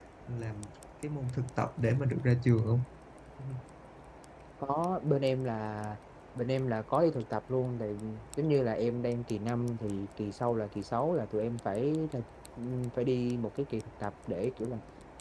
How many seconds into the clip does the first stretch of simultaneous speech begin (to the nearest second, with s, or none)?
none